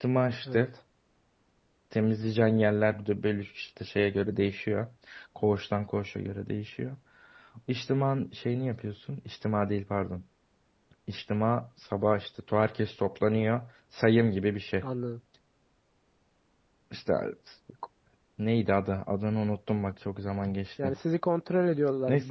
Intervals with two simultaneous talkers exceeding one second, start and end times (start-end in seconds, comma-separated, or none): none